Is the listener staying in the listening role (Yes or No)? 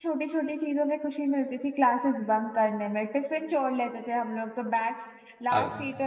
Yes